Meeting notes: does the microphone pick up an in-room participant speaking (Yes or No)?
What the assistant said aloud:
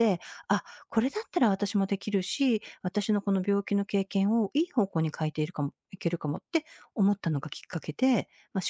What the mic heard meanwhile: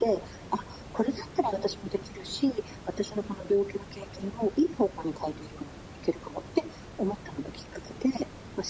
No